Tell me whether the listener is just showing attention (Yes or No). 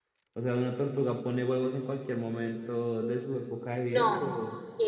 No